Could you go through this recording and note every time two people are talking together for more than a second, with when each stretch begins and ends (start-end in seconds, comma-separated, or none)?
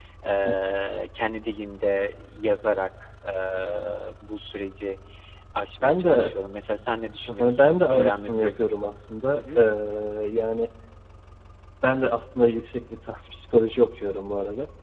7.3-8.6